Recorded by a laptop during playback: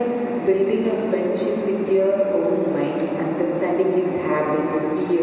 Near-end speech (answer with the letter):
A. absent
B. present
A